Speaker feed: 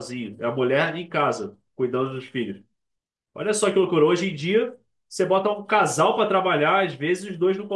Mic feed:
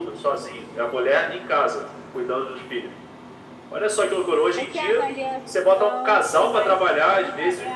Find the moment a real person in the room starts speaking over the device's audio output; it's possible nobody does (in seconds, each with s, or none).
4.5 s